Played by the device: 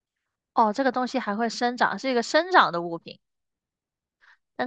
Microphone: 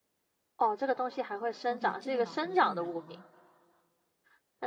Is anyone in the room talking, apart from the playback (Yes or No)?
Yes